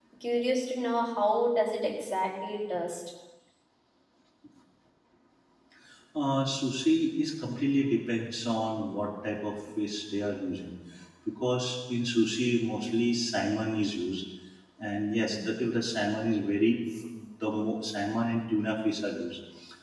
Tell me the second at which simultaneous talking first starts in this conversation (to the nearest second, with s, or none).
none